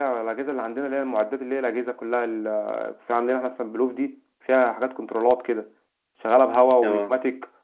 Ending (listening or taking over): listening